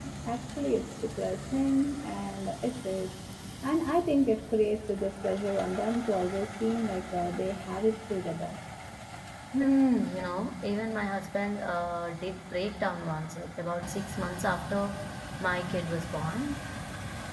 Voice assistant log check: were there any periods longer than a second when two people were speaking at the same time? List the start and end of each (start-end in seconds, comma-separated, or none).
none